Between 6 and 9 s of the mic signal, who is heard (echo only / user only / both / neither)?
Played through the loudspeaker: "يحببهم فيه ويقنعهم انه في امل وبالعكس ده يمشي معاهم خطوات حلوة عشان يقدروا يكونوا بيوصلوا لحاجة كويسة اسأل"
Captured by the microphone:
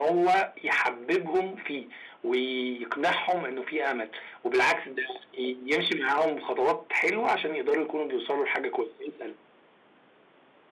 echo only